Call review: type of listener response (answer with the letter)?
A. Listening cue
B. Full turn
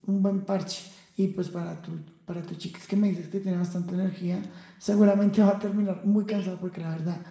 A